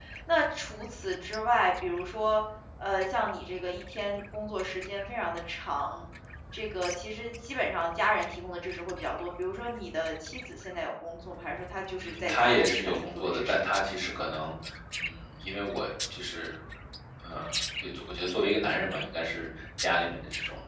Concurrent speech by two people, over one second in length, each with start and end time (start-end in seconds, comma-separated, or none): 12.0-13.7